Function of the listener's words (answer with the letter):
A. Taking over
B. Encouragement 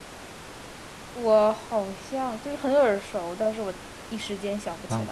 A